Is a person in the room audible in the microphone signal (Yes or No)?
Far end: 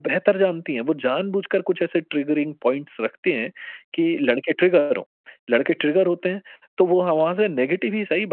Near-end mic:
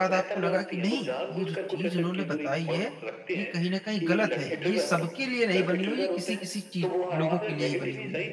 Yes